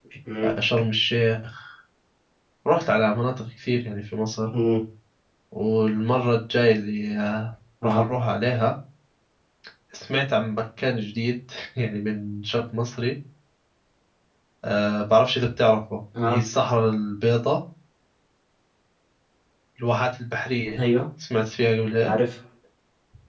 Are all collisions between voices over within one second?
Yes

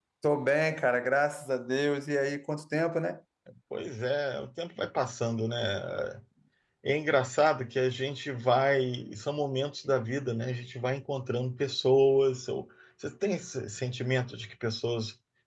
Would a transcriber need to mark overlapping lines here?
No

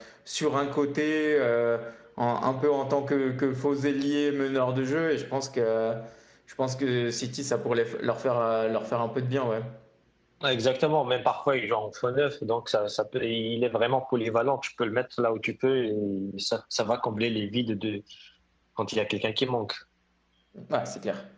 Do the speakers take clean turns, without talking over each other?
Yes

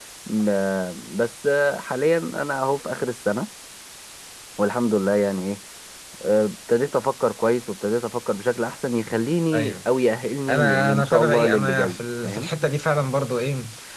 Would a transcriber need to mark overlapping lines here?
Yes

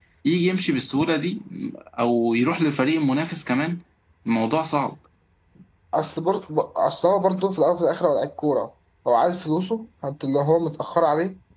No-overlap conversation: Yes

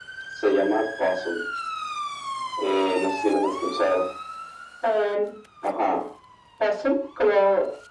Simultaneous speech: No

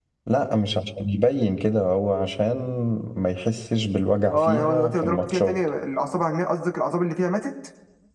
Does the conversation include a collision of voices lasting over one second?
Yes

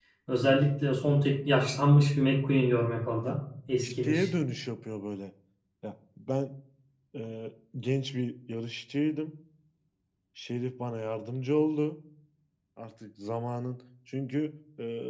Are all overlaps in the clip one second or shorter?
Yes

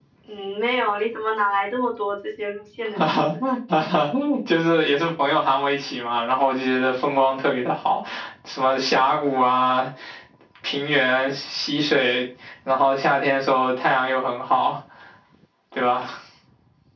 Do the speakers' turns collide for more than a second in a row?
No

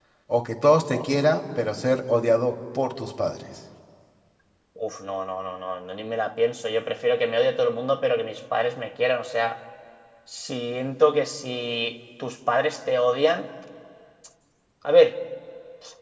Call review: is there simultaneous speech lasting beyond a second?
No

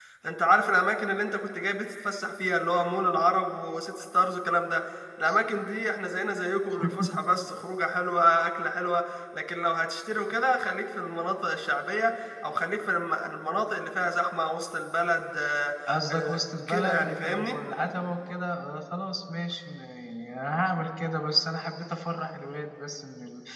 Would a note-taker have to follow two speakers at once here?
Yes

